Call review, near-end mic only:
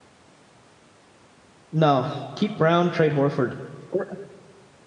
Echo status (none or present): none